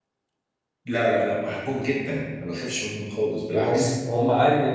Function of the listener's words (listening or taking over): taking over